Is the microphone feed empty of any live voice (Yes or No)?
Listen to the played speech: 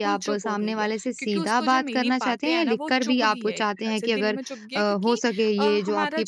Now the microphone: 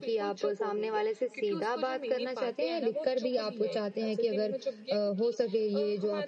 Yes